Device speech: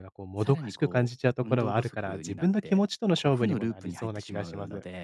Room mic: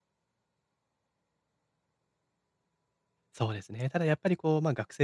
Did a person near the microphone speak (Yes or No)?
Yes